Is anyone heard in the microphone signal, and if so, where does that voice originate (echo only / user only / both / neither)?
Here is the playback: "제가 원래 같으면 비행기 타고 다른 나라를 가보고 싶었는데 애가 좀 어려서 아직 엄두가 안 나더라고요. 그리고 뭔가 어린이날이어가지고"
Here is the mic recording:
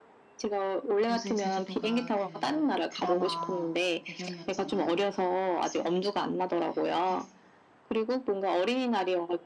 both